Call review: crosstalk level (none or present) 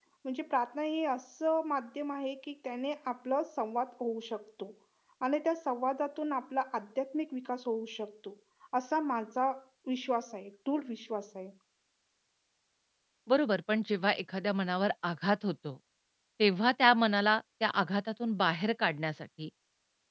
none